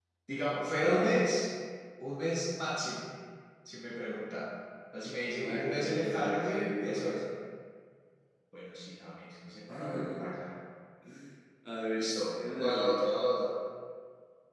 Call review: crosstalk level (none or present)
present